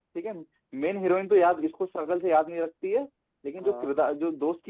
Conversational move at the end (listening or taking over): listening